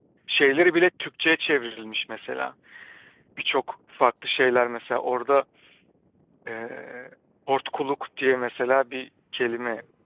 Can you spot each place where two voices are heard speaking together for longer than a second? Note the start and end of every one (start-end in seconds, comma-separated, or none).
none